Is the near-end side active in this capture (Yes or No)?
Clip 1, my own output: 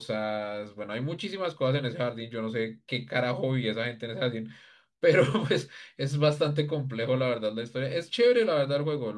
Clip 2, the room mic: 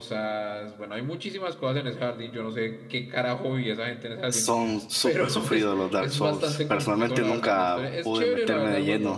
Yes